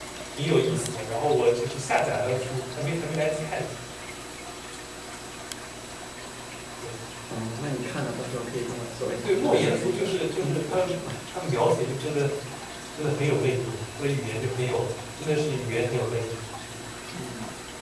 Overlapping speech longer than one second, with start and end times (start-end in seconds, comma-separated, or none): 9.2-11.0